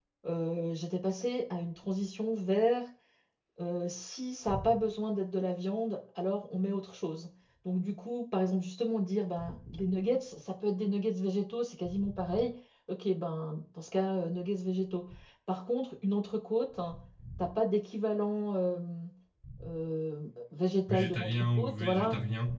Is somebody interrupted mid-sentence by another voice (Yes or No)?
Yes